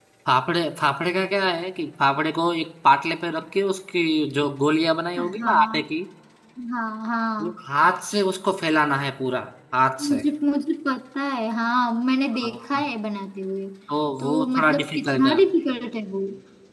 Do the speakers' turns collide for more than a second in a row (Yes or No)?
Yes